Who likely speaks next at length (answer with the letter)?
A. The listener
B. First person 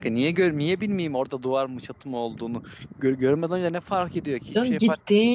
A